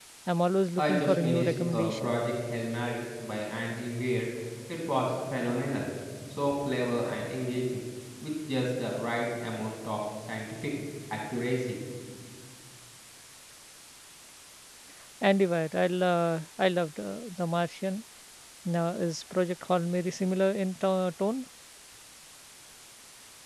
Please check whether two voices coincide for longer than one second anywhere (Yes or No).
Yes